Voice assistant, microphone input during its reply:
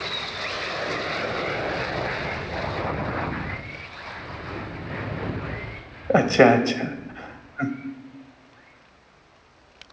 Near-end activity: present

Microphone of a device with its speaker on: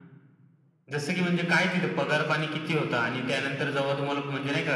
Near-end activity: none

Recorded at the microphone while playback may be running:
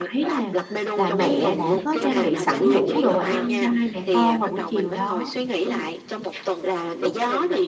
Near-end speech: present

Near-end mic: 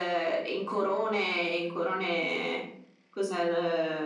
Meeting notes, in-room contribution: none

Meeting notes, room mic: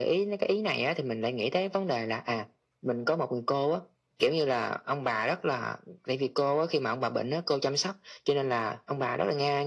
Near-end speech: none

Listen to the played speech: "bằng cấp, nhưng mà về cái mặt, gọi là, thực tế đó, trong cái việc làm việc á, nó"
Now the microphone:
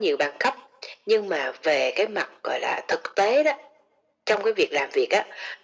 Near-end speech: none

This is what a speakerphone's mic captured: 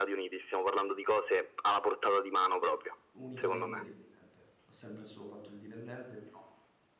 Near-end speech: present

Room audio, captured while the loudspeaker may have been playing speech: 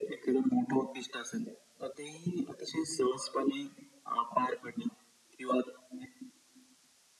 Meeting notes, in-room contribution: none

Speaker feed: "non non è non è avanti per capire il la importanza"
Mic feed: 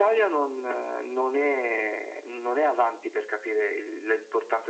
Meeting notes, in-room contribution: none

